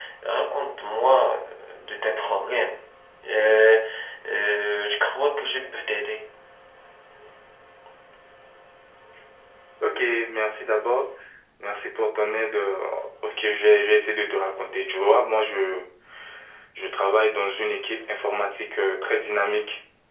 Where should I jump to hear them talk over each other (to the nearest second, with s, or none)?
none